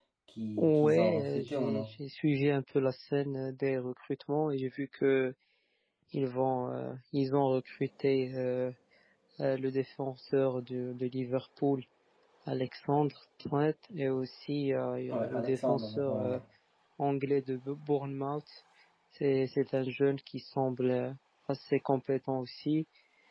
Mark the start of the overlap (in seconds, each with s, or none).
0.6 s